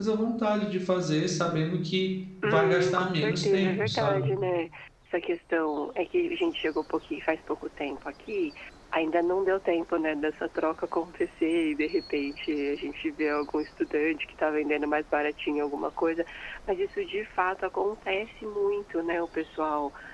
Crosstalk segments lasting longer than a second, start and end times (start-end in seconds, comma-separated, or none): 2.4-4.2